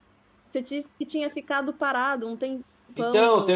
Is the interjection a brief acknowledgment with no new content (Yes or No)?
No